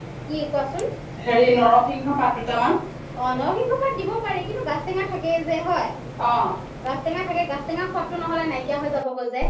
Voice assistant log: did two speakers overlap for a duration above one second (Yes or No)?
No